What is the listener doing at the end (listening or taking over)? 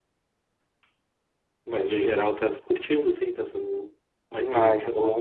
taking over